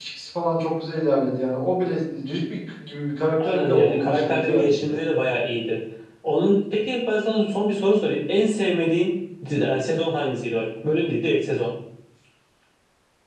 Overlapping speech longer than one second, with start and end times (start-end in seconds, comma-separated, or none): 3.4-4.9